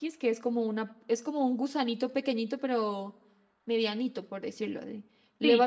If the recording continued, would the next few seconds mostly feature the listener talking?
No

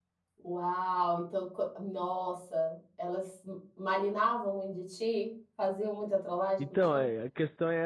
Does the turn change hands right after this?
Yes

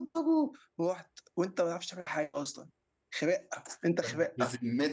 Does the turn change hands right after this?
Yes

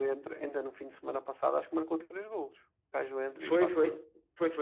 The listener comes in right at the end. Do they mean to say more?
Yes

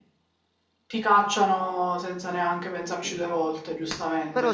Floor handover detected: Yes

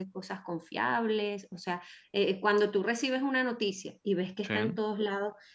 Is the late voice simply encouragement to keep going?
Yes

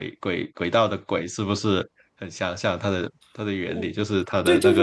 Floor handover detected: Yes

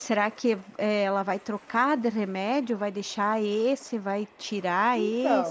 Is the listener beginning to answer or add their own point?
Yes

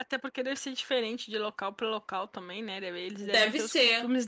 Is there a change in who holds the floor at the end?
No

